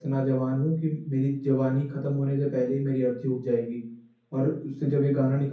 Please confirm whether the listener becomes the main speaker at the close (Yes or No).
No